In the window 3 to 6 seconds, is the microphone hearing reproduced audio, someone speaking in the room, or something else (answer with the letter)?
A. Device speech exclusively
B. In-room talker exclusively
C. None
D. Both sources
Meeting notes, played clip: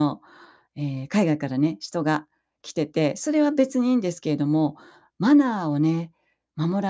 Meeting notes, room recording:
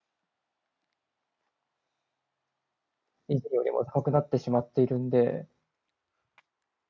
B